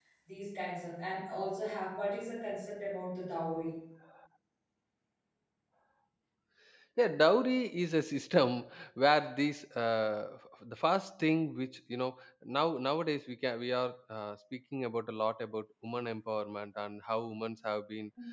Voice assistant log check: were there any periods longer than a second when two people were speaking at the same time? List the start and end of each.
none

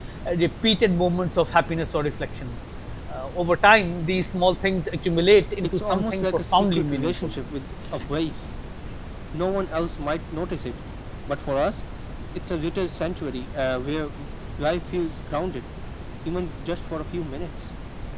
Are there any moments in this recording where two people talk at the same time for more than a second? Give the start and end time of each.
5.6-7.3

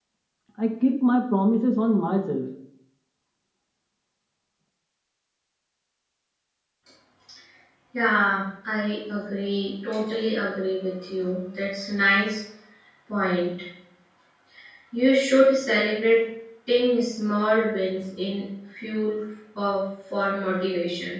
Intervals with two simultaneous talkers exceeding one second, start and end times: none

